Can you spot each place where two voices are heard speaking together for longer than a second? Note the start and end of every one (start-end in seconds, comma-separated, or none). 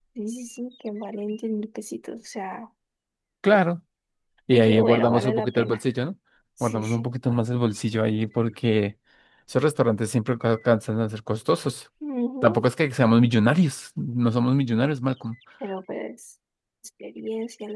4.5-5.8